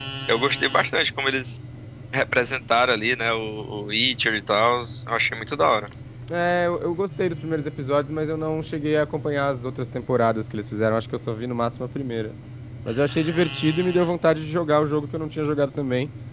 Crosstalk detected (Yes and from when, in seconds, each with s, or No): No